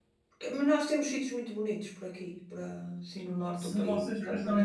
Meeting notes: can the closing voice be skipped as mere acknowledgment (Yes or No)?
No